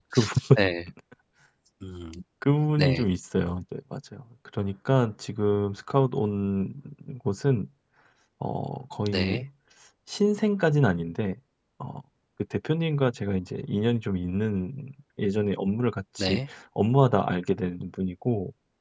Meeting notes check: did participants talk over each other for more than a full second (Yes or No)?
No